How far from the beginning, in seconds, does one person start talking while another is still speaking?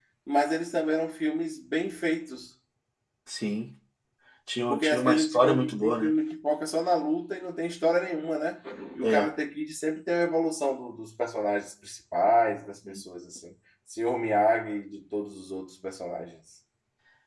4.7 s

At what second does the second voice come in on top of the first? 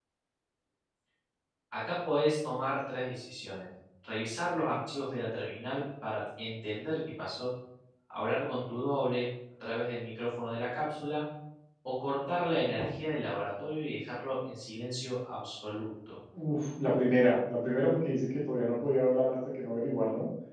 none

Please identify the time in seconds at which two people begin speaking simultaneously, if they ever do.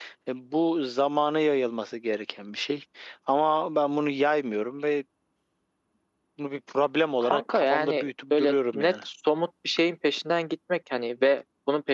7.2 s

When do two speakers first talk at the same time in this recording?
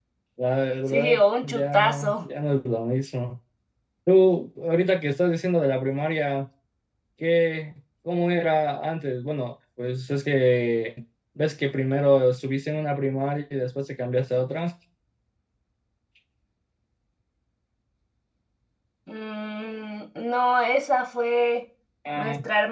0.9 s

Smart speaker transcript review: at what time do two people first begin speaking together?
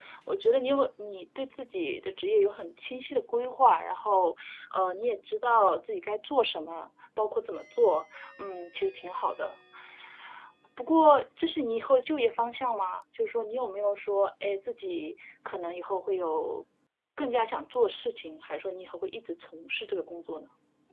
none

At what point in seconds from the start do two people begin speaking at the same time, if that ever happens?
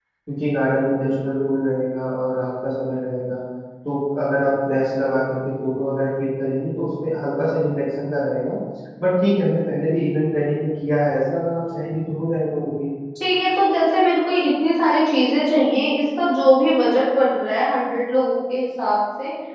none

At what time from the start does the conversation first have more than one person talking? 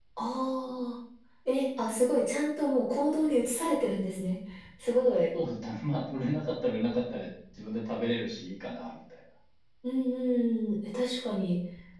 none

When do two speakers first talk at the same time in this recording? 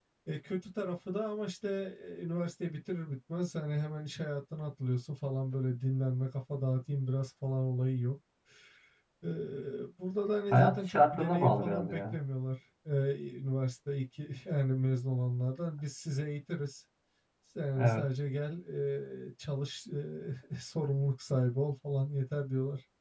10.5 s

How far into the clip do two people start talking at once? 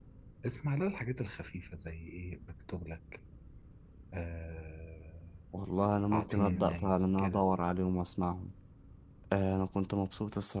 6.1 s

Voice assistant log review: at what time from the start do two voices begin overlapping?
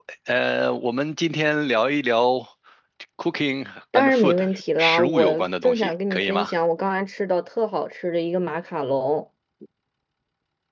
3.9 s

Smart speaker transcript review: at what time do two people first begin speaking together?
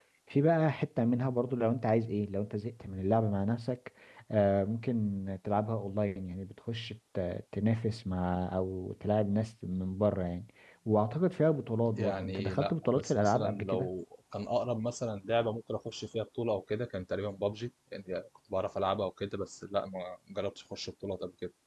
11.9 s

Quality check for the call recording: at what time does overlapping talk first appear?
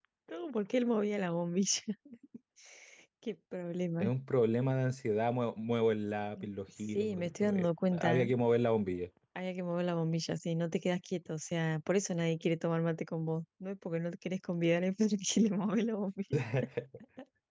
7.0 s

